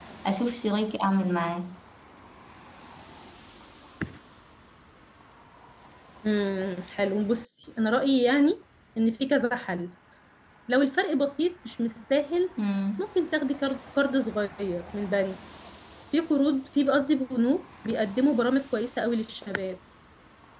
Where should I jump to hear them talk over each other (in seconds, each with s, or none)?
none